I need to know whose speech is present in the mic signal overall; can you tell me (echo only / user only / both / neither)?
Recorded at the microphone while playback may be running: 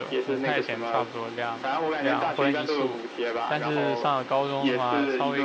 both